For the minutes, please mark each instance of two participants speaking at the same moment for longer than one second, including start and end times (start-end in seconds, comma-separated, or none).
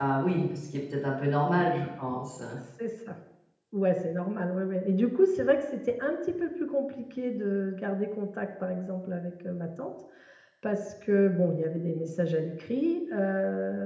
none